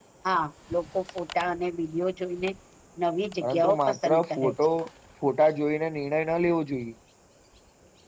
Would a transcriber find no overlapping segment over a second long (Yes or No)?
No